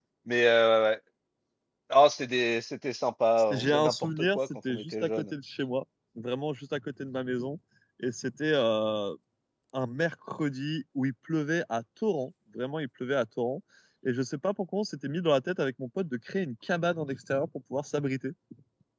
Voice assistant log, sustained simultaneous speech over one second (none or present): present